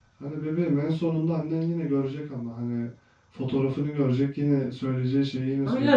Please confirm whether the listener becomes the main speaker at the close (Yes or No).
Yes